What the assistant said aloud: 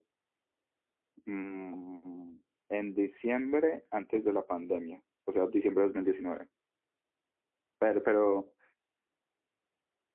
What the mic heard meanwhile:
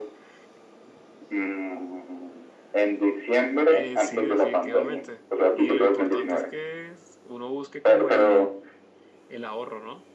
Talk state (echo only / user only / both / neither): both